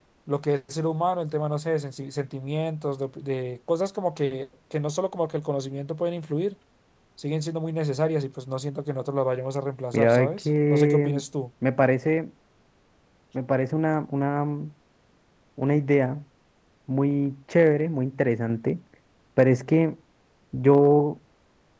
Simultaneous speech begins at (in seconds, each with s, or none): 9.9 s